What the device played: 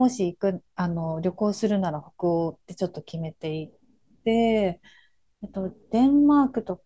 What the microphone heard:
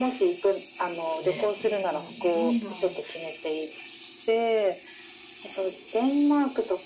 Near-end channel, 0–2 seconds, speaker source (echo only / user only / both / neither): both